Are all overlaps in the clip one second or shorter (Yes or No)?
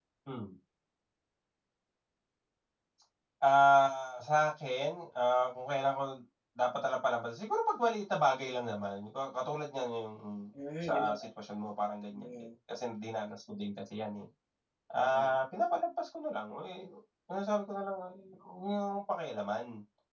Yes